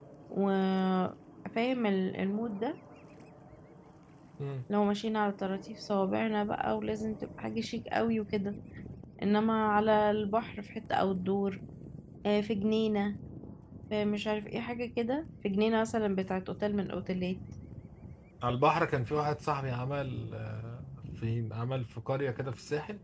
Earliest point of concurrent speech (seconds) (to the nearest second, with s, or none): none